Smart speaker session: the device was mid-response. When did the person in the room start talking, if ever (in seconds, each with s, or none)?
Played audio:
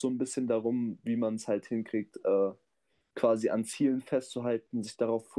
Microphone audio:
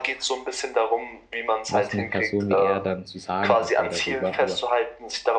1.7 s